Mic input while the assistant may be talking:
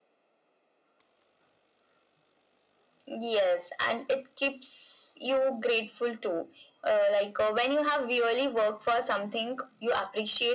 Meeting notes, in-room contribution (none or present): none